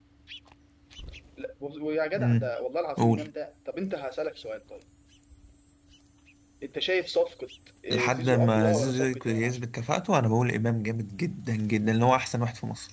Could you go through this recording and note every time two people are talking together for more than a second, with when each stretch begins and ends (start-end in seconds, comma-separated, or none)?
7.9-9.7